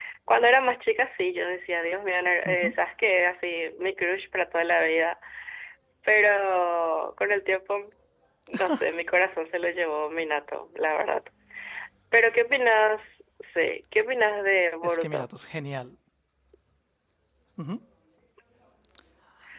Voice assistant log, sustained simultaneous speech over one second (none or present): none